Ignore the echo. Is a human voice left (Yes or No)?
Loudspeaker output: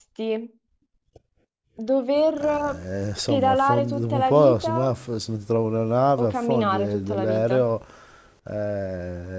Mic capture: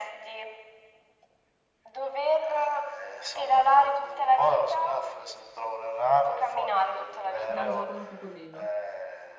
Yes